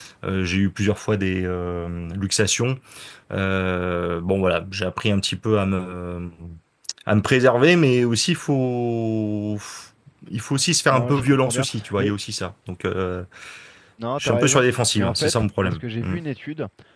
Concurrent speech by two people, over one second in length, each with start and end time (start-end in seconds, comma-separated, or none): 10.9-12.1, 14.2-16.1